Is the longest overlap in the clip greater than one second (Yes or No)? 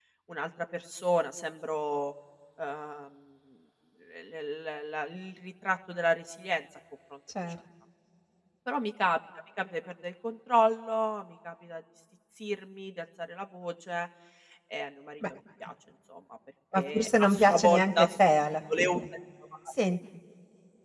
Yes